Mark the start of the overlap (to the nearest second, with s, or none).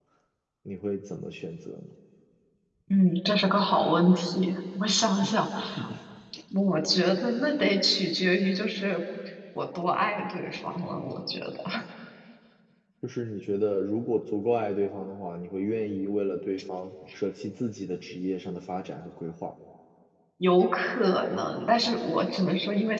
none